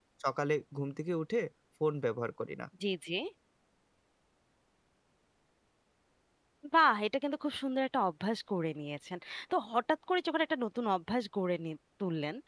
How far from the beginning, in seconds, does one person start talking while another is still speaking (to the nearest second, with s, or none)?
none